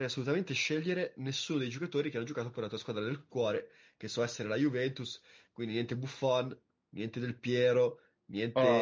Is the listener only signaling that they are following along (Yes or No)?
Yes